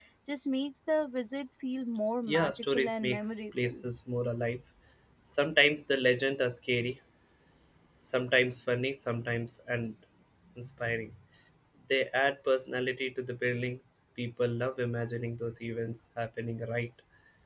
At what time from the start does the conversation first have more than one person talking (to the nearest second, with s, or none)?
2 s